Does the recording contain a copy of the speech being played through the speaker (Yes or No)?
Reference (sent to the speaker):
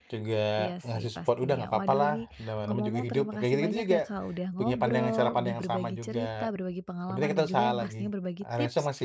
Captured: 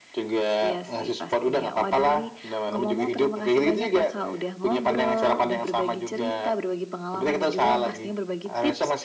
Yes